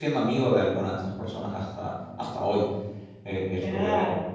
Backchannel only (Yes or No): No